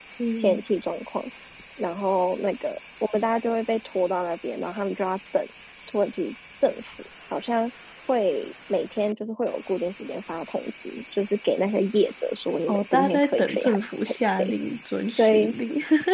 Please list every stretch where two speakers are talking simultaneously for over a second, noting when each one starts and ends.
12.7-14.5

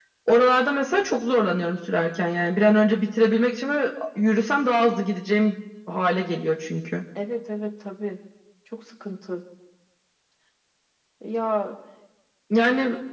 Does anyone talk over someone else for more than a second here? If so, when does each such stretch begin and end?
none

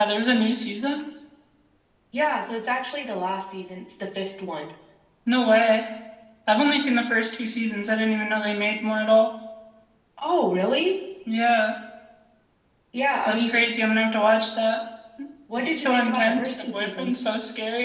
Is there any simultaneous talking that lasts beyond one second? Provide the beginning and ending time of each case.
15.6-17.2

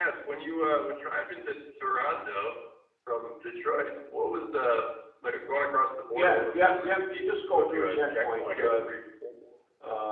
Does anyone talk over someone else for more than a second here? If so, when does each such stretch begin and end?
6.1-8.8

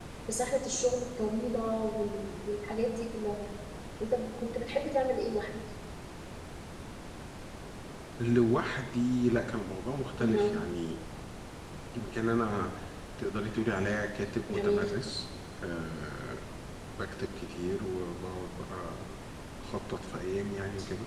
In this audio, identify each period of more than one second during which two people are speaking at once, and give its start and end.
none

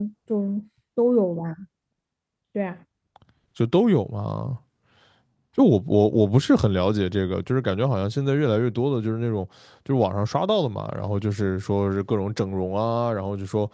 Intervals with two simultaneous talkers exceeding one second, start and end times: none

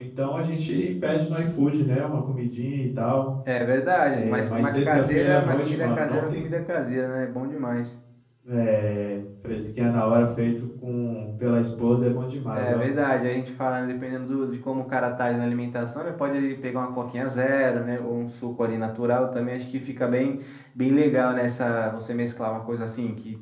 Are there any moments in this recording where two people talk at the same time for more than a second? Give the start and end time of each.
4.1-6.5

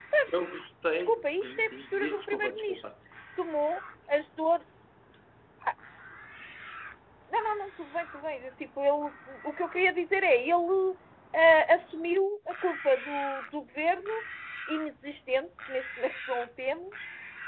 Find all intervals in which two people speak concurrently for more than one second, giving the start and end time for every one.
0.9-2.8

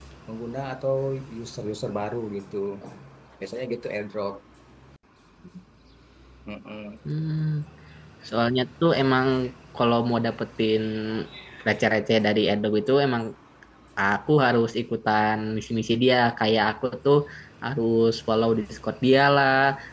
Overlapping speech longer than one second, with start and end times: none

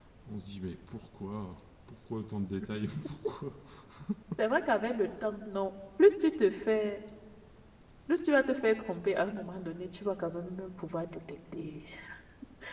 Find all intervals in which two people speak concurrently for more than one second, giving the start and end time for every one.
none

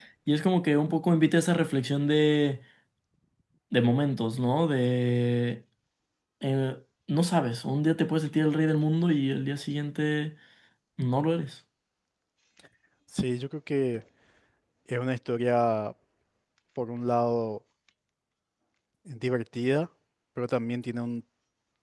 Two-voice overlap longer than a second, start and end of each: none

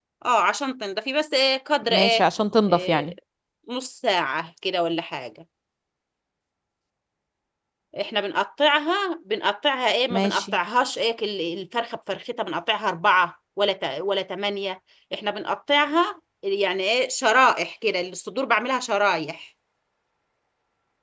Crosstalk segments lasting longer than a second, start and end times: none

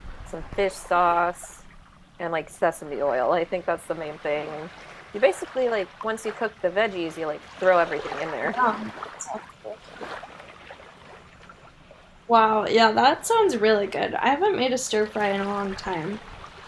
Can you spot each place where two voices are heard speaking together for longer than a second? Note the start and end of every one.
none

